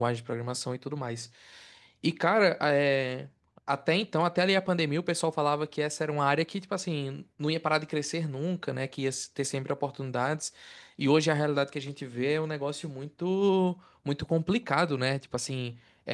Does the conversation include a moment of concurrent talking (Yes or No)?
No